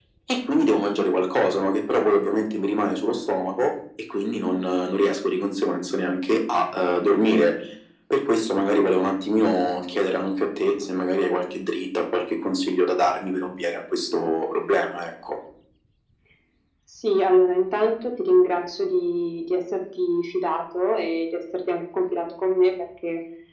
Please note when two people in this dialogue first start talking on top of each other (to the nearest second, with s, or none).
none